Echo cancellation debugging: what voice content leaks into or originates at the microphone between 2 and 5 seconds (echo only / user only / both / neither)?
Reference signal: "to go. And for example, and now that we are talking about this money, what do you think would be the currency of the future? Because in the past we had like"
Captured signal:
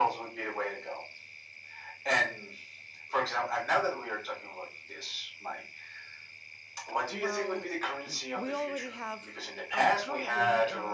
echo only